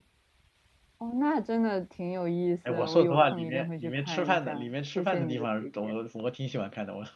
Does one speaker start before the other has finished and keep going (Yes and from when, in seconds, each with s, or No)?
Yes, from 2.6 s